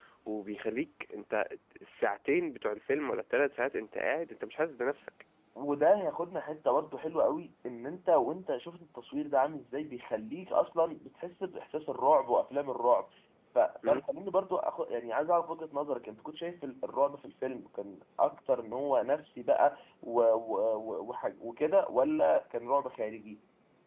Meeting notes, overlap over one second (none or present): none